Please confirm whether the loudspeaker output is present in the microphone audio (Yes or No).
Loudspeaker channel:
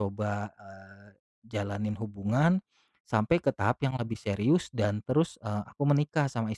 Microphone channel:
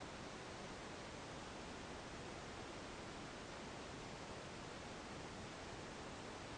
No